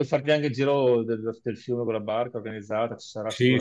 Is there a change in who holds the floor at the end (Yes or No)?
Yes